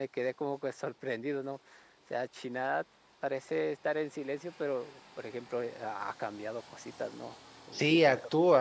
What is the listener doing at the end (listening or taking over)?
taking over